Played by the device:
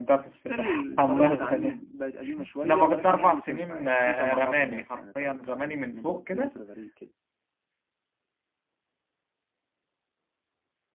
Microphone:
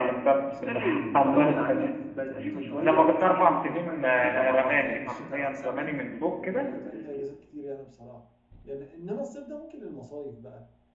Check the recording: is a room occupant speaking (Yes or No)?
Yes